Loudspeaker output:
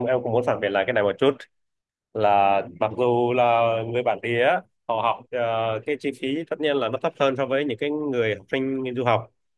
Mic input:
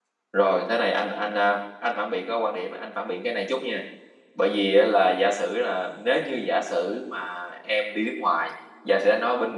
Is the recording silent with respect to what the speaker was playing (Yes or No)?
Yes